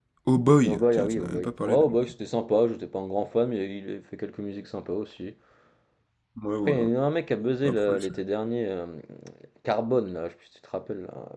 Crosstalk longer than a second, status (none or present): present